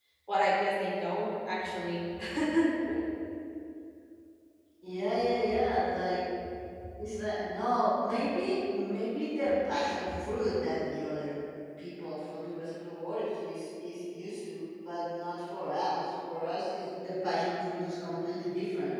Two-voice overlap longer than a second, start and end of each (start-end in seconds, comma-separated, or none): none